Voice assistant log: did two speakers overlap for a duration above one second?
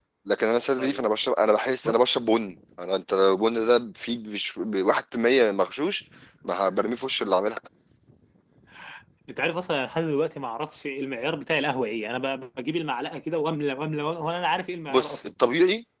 No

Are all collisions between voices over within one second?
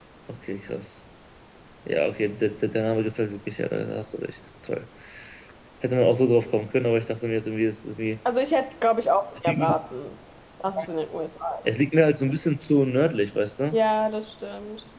Yes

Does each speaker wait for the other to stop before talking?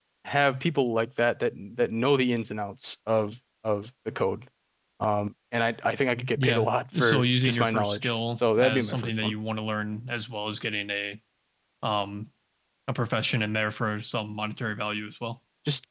No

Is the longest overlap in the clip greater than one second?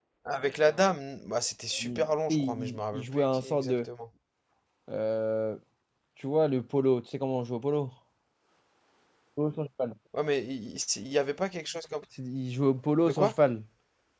Yes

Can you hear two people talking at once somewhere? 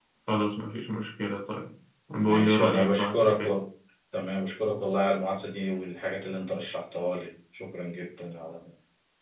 Yes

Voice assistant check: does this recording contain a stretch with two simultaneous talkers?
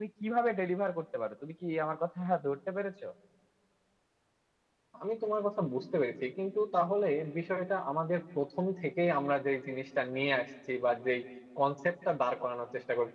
No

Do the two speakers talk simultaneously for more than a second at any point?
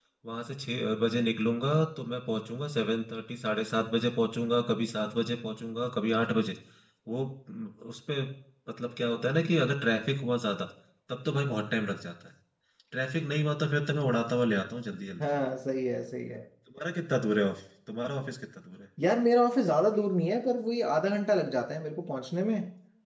No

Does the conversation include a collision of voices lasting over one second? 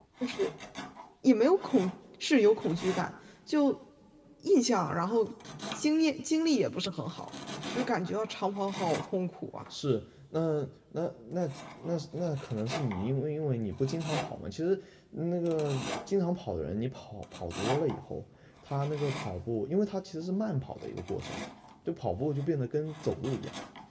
No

